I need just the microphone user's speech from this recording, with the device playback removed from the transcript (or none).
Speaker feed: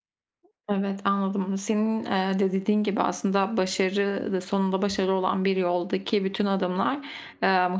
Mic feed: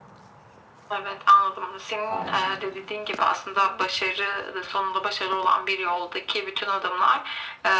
Aynen.